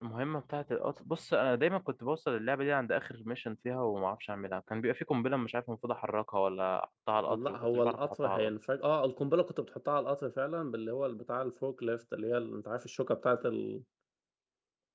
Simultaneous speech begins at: 7.3 s

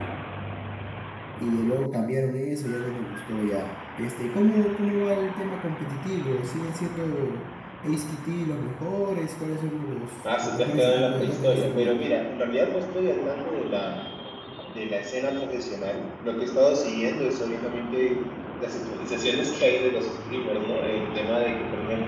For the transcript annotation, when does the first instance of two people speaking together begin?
10.2 s

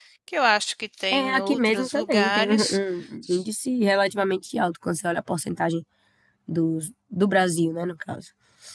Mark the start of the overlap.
1.1 s

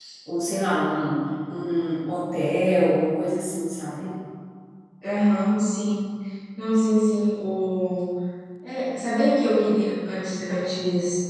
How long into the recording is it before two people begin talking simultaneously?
none

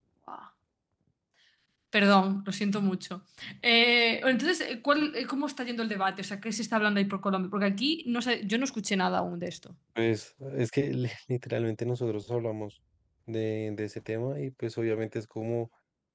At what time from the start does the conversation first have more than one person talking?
none

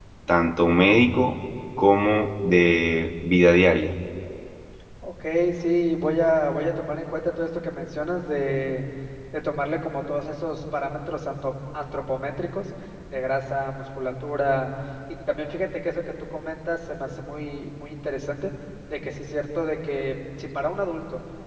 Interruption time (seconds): none

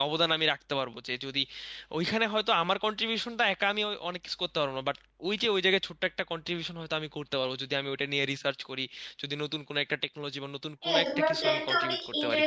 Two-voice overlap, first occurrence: 10.8 s

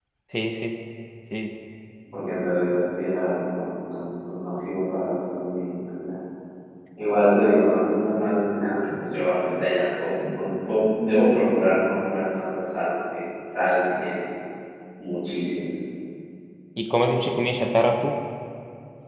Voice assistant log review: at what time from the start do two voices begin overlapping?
none

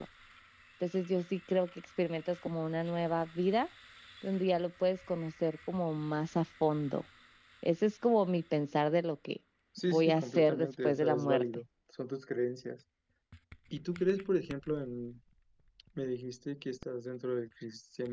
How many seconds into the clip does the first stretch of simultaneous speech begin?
9.9 s

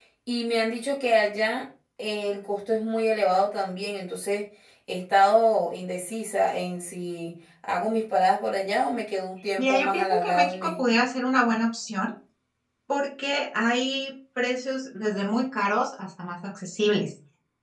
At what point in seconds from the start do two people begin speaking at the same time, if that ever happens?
9.6 s

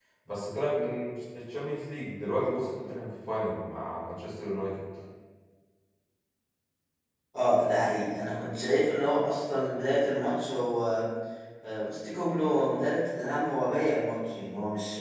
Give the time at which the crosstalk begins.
none

